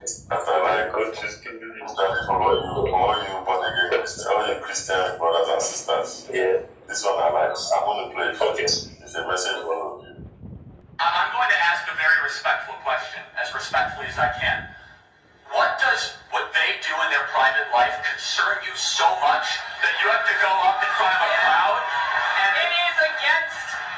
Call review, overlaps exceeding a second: none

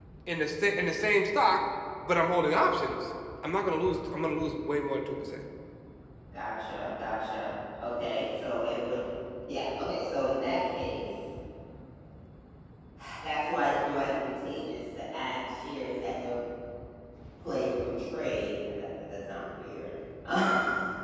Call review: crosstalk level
none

